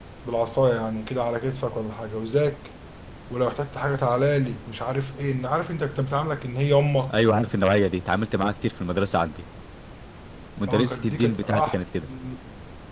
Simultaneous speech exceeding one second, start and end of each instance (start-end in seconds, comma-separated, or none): 10.7-12.1